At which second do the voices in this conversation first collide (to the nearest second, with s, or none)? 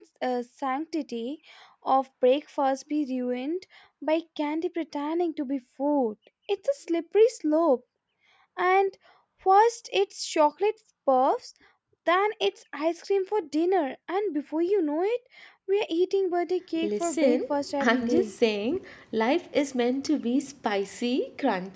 17 s